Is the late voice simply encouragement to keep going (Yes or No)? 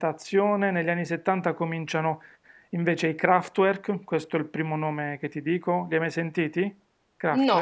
No